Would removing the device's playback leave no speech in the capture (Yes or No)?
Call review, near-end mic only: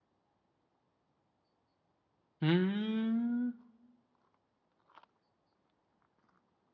No